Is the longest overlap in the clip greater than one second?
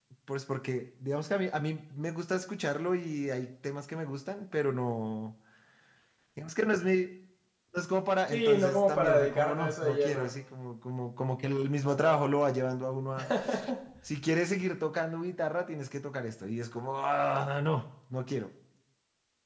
Yes, from 8.3 s

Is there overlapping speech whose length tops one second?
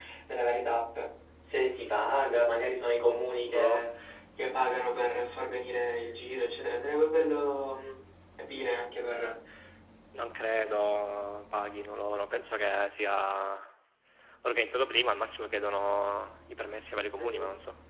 No

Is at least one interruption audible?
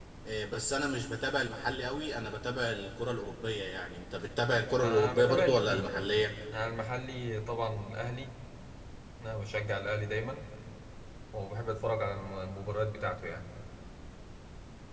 Yes, from 4.8 s

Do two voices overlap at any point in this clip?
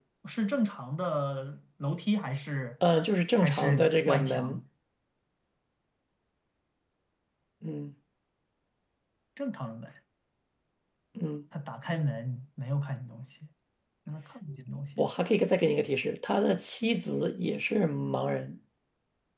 Yes, from 3.4 s

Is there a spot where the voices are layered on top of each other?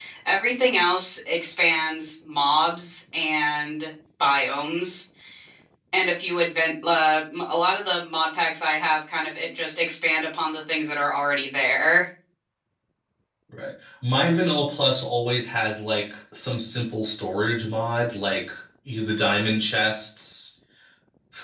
No

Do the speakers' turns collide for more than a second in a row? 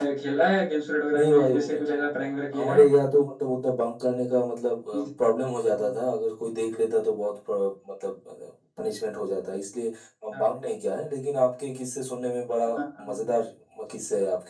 Yes, from 1.1 s

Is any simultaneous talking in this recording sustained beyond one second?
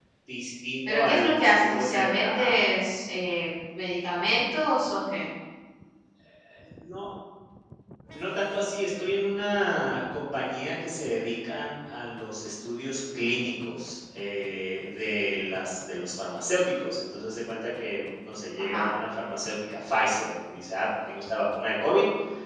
Yes, from 0.9 s

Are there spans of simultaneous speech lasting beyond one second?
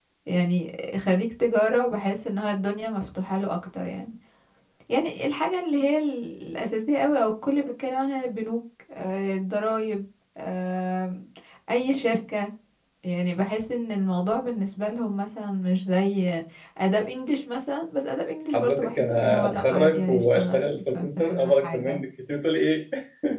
Yes, from 18.5 s

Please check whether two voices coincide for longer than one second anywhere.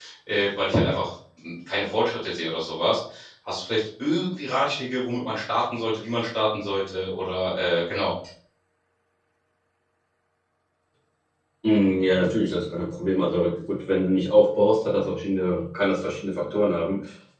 No

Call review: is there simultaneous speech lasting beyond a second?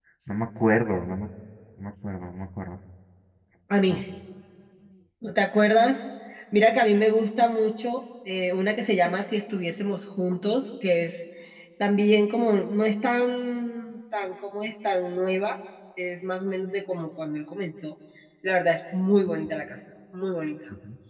No

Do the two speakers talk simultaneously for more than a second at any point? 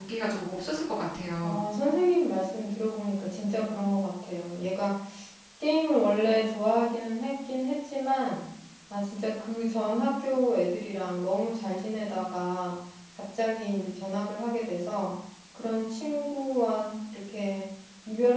No

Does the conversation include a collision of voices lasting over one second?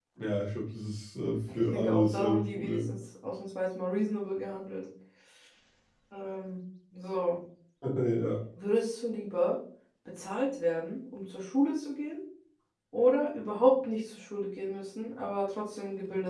Yes, from 1.5 s

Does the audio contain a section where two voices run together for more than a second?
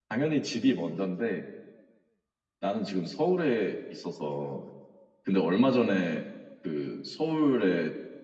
No

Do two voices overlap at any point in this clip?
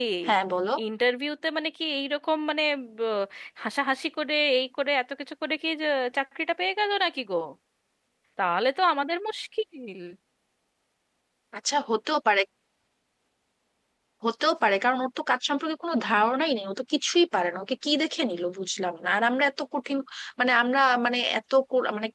No

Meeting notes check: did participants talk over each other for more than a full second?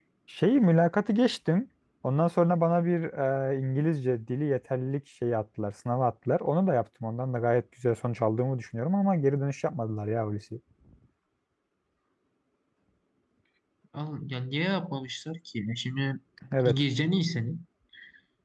No

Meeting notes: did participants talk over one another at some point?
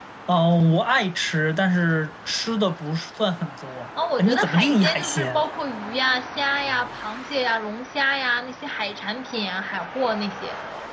Yes, from 4.0 s

